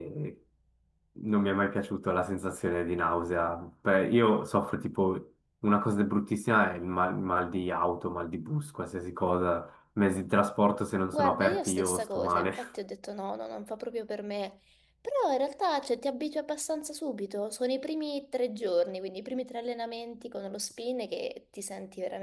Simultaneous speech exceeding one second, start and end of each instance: 11.1-12.5

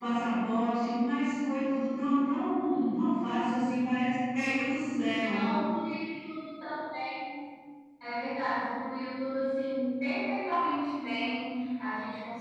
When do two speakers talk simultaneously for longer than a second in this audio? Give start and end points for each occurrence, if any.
none

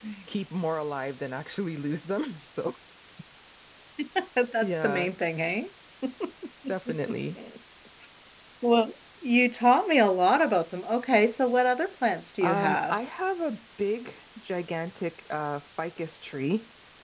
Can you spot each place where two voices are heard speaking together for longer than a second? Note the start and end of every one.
none

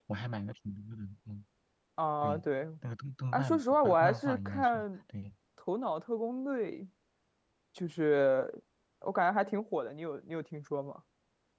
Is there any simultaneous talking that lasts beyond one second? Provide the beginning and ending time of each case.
3.3-4.8

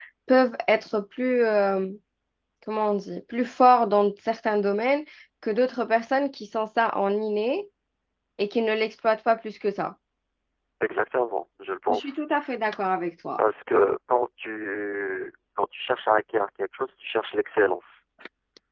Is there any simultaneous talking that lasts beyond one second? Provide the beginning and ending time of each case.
none

